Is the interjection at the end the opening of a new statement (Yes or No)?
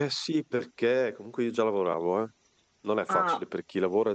No